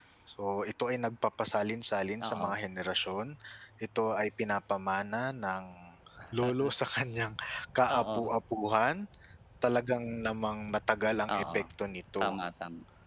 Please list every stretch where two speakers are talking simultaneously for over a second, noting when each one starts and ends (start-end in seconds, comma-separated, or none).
none